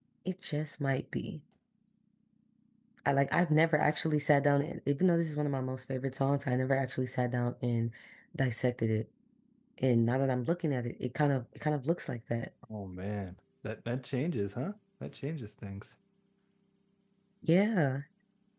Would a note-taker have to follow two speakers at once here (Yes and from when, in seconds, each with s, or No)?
No